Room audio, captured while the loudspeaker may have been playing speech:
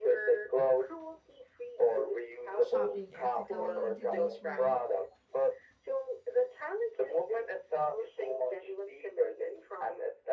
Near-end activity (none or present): present